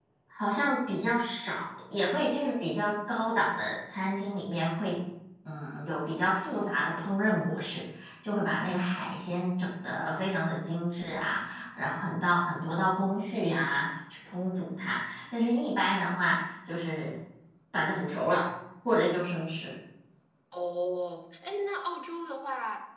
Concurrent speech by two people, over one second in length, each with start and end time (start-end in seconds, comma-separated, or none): none